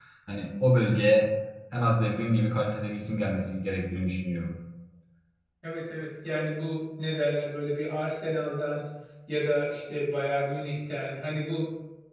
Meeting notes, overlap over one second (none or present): none